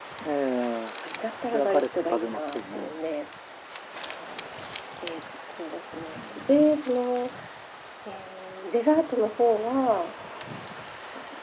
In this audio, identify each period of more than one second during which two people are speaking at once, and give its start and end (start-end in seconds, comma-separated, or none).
1.5-3.0